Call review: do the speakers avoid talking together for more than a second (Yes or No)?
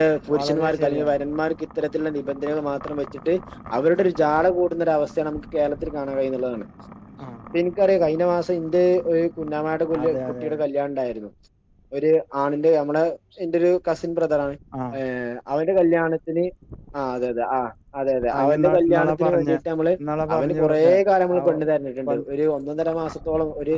No